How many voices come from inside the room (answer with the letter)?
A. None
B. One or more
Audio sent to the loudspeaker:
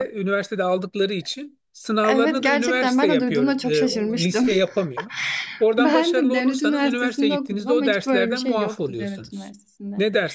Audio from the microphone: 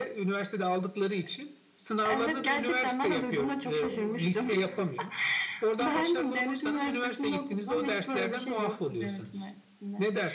A